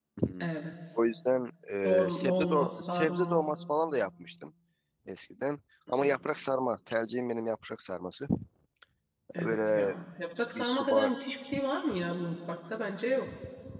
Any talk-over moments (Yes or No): Yes